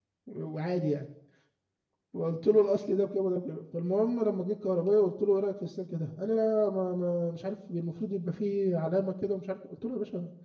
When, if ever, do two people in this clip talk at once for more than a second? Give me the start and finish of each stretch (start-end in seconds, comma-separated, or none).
none